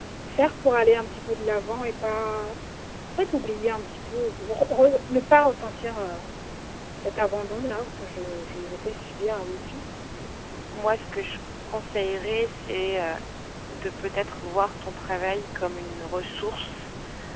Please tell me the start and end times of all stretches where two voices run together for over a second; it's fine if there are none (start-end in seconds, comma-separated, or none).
none